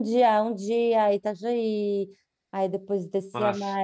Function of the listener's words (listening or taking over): listening